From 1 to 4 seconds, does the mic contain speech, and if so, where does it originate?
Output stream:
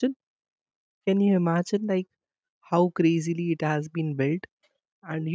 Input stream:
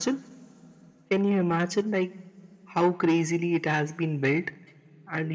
echo only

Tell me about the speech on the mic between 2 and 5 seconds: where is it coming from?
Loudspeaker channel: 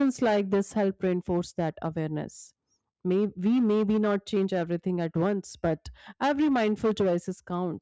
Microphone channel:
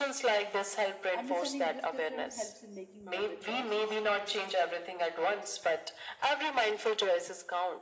both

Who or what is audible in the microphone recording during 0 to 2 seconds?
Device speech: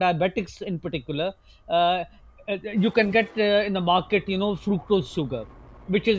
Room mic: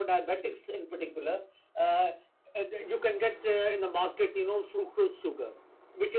echo only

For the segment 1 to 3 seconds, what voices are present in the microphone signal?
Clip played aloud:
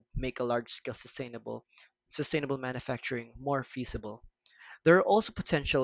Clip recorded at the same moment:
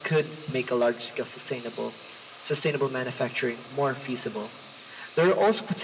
echo only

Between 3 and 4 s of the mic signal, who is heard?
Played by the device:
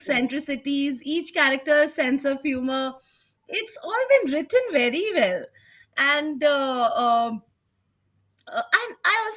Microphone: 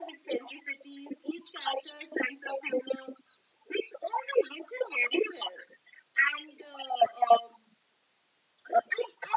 echo only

